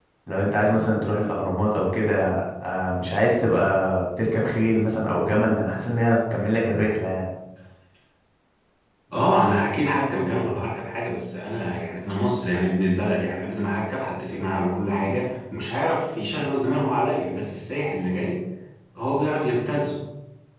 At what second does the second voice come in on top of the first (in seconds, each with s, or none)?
none